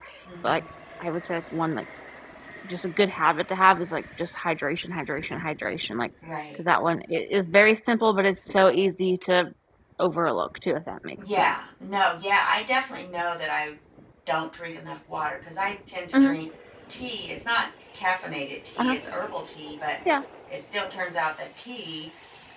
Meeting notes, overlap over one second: none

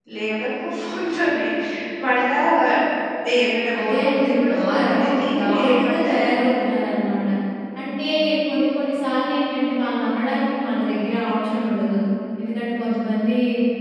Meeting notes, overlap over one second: present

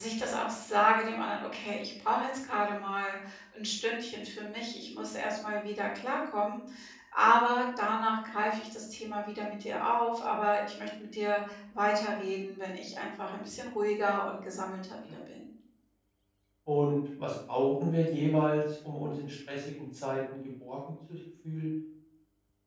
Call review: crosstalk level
none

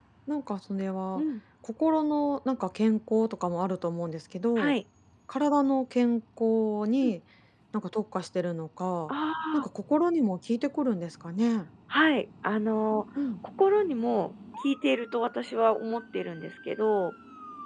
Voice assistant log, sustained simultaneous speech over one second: none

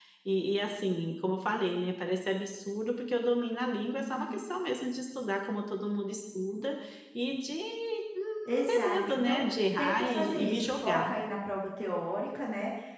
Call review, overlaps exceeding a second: present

